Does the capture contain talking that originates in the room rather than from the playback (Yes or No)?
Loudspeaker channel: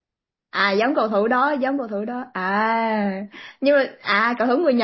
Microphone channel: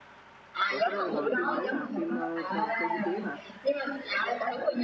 Yes